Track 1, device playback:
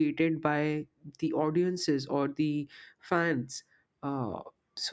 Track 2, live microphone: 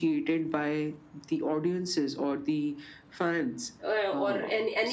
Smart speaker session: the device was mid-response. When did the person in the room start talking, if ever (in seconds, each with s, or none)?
3.8 s